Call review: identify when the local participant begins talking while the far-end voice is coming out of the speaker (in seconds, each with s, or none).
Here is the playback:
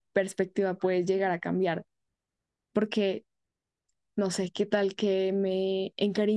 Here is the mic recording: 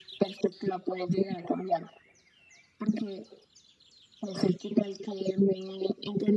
none